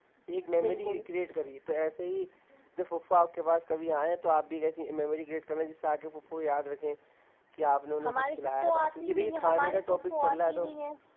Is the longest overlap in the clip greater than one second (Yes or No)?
Yes